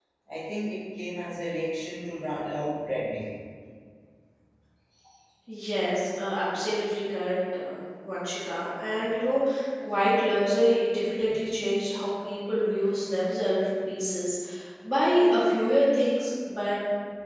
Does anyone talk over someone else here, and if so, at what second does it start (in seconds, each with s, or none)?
none